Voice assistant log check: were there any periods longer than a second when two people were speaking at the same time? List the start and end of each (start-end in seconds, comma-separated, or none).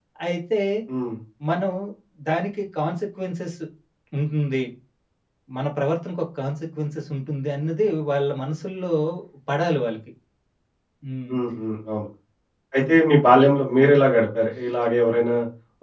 none